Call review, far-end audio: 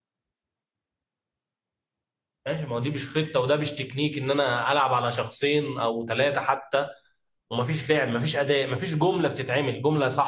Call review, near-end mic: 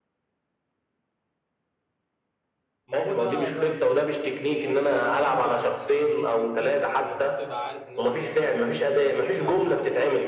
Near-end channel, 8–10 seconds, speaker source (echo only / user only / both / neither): both